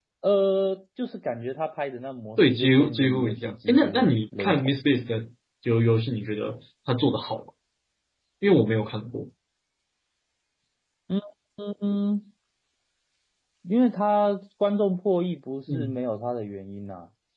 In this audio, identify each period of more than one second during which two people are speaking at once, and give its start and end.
2.4-4.8

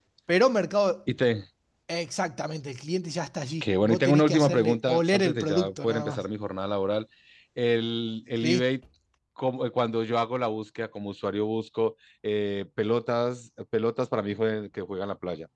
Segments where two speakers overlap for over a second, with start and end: 3.6-6.2

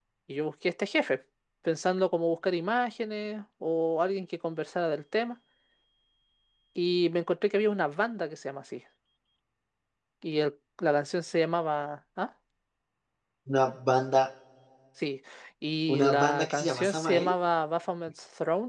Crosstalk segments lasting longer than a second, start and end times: 15.9-17.4

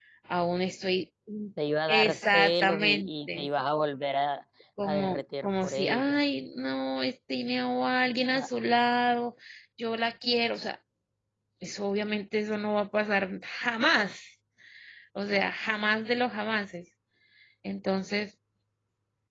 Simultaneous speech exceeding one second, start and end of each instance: 1.9-3.5, 4.8-6.2

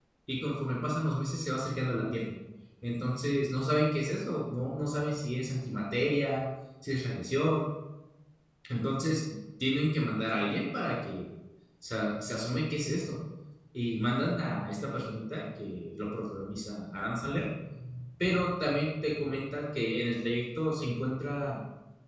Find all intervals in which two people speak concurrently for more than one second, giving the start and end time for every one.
none

